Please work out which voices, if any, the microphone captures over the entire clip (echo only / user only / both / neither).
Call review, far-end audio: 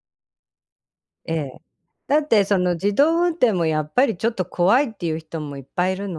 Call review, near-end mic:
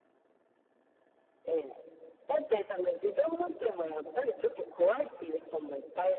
echo only